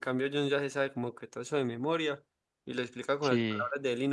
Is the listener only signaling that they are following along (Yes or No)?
Yes